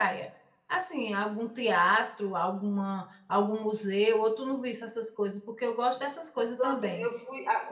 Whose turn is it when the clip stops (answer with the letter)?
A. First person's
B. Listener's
B